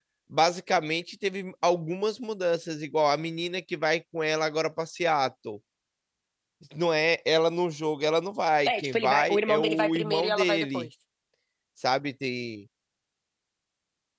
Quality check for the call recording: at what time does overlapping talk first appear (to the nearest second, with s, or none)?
9 s